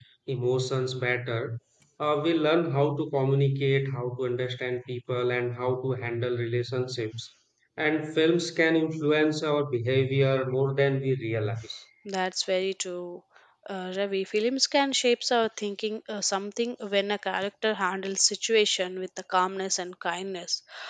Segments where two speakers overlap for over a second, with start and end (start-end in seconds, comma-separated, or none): none